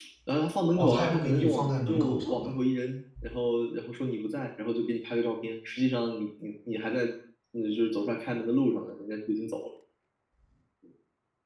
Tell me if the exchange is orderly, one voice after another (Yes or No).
No